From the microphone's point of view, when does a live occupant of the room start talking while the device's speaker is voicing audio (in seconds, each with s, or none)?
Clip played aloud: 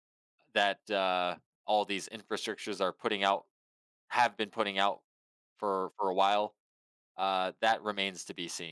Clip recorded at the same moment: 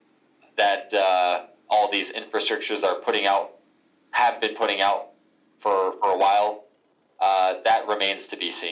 none